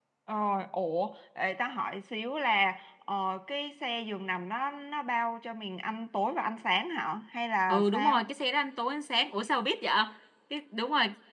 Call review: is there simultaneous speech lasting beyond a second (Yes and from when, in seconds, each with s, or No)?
No